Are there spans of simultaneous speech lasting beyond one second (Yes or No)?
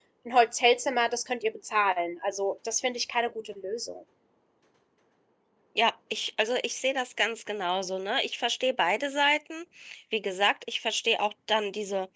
No